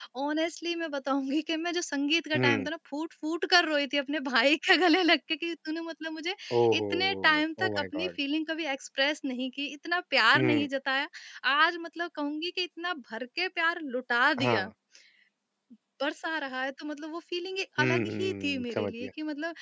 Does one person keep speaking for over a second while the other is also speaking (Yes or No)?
Yes